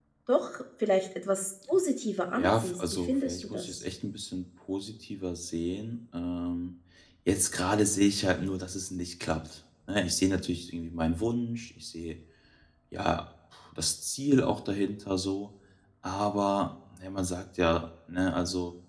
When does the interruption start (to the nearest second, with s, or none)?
2 s